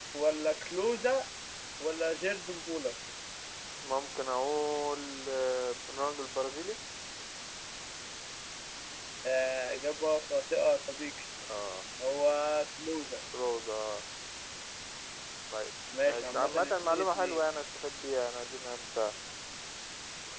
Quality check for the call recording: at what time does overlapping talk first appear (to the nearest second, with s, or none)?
16 s